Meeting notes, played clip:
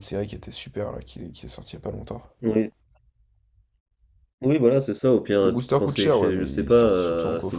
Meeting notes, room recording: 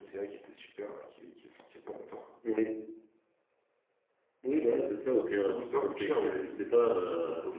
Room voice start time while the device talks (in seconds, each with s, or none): none